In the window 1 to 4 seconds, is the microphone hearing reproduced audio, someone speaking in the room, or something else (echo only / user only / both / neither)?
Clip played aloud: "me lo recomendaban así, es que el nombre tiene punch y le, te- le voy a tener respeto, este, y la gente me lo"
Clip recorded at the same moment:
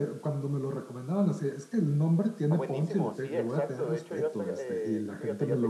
both